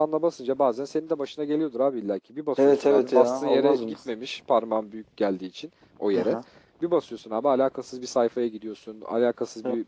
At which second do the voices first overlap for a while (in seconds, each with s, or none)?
2.6 s